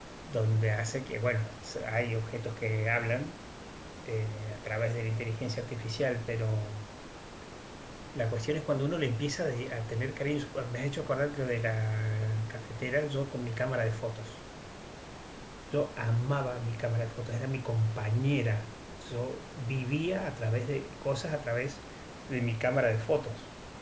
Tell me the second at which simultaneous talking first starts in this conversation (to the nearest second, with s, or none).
none